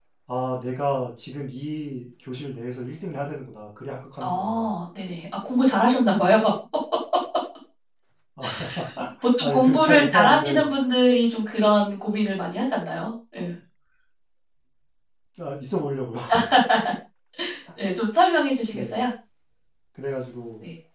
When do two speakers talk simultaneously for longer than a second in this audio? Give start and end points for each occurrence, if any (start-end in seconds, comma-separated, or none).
9.2-10.7